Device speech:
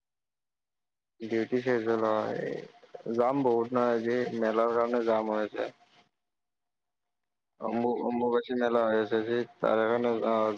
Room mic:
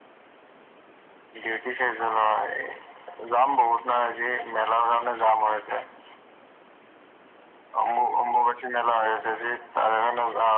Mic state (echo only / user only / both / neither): echo only